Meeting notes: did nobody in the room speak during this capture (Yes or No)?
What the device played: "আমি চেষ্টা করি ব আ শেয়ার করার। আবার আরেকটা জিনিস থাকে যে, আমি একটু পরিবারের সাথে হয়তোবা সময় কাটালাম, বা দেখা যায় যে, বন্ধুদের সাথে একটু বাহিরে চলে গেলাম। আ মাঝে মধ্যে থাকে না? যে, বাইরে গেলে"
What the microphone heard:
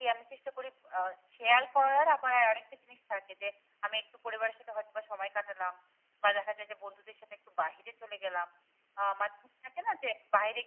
Yes